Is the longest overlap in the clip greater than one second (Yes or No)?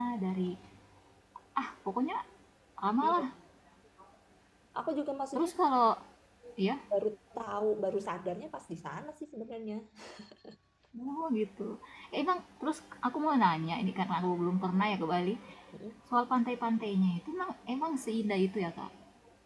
No